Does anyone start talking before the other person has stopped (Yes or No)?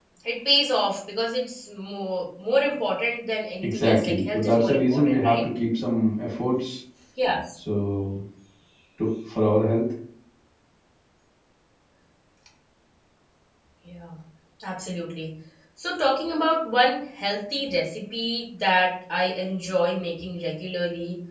Yes